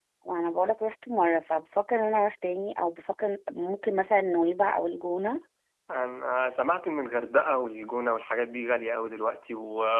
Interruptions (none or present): none